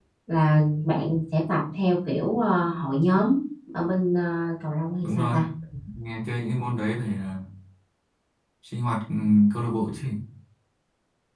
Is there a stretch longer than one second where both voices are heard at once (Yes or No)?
No